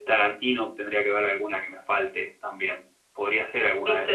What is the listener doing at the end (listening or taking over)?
taking over